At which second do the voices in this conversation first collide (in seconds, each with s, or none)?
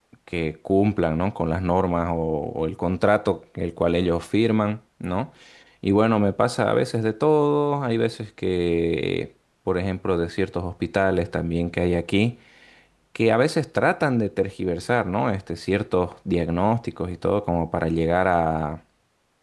none